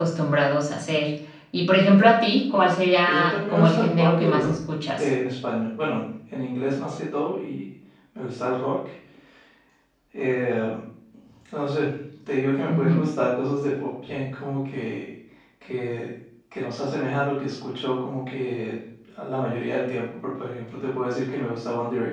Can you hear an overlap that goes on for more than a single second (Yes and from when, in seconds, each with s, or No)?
Yes, from 3.0 s